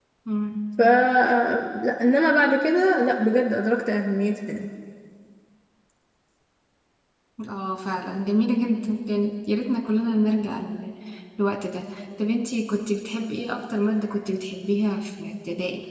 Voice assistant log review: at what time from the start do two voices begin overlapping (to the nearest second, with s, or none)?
none